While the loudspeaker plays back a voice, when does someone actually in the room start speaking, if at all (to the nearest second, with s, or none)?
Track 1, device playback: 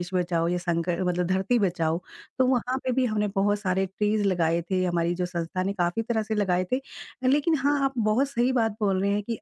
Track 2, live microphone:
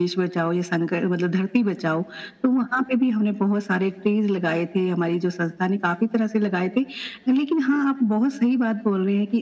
none